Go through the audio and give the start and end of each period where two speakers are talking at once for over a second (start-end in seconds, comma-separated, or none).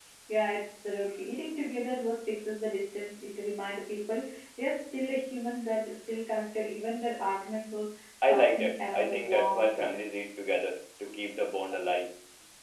8.2-10.0